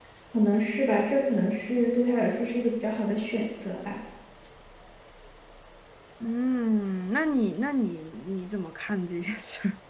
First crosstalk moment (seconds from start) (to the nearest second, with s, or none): none